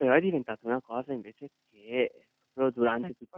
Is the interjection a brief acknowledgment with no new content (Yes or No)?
Yes